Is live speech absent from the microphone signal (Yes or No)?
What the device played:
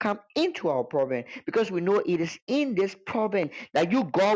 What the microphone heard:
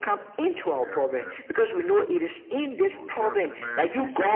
No